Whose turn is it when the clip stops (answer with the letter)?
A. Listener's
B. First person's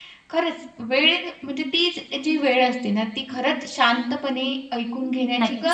A